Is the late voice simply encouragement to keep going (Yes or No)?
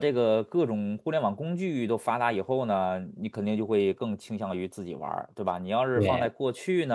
Yes